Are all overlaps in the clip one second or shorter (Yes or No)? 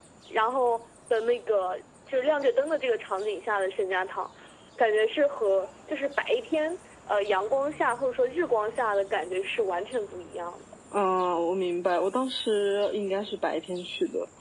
Yes